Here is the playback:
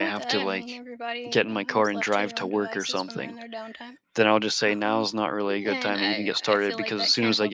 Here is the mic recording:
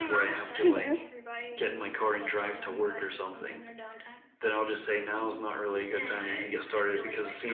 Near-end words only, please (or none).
Okay.